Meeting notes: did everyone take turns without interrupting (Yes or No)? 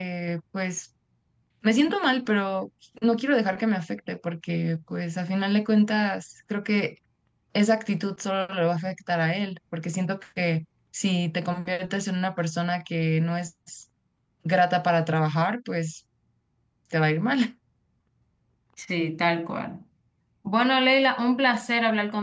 Yes